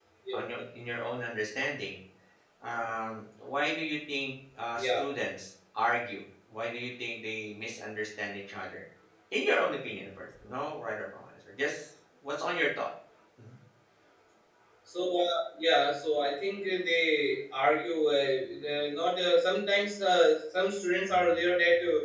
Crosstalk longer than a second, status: none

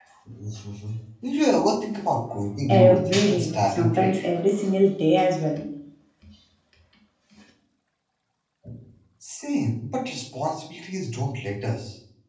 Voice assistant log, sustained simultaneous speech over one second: present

